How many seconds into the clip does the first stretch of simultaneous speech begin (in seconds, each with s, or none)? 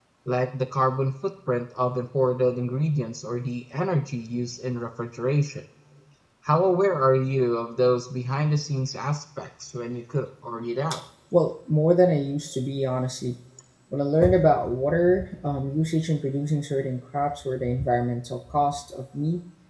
none